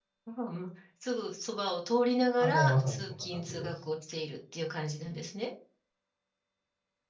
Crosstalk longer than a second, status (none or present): present